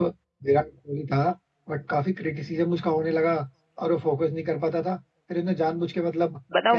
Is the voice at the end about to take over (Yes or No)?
Yes